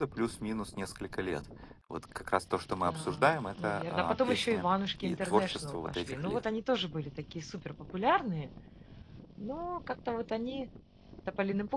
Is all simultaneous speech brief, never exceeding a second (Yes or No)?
No